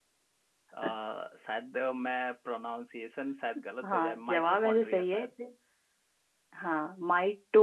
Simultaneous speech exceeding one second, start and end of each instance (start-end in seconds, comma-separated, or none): 3.8-5.3